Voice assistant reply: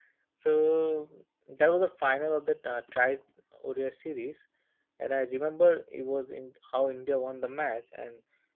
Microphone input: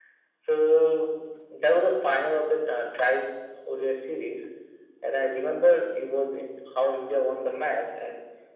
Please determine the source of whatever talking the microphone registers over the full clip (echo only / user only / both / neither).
echo only